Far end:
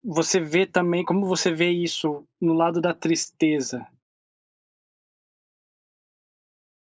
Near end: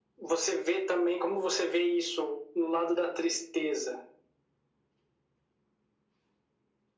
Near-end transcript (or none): none